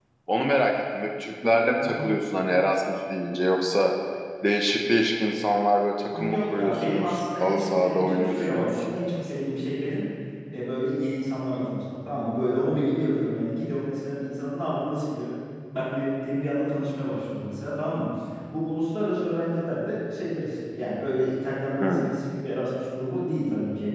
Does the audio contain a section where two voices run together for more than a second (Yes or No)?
Yes